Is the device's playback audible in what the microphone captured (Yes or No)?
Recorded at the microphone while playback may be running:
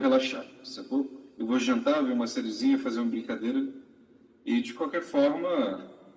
Yes